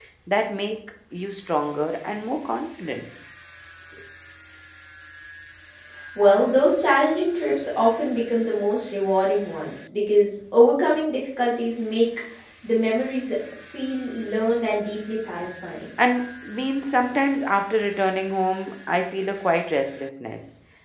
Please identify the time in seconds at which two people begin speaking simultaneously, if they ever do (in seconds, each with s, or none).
none